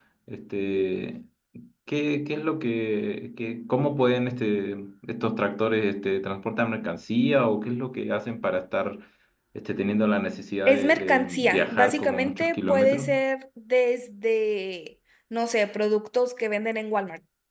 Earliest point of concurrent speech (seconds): 11 s

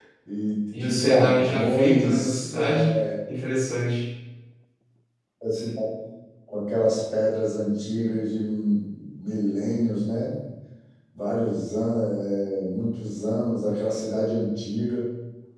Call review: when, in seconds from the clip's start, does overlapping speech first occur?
1 s

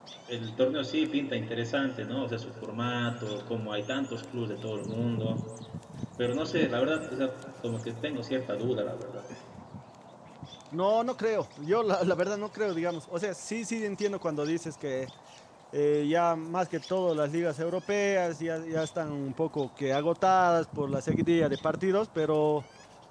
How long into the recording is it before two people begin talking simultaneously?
none

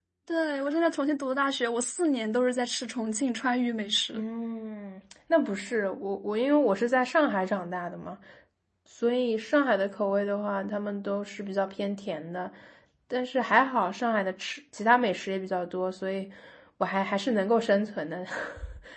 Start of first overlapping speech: none

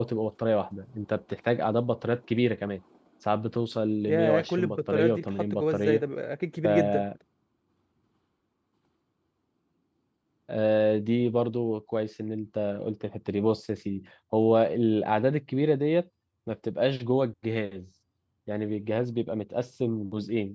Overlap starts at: 4 s

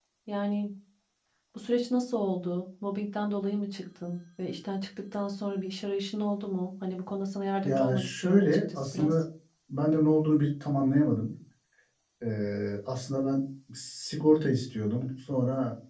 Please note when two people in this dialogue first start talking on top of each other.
8 s

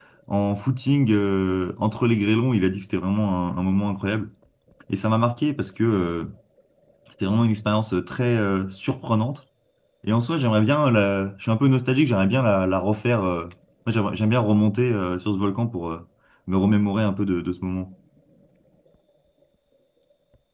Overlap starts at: none

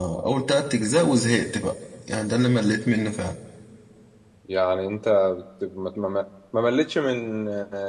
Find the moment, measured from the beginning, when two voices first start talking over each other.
none

